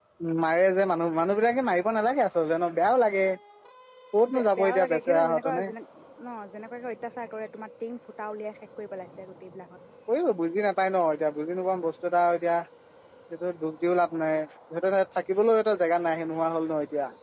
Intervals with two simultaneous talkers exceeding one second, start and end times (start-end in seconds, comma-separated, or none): 4.3-5.6